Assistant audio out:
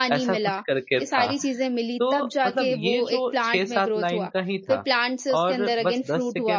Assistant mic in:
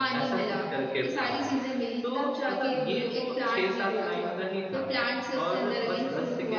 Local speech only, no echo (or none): none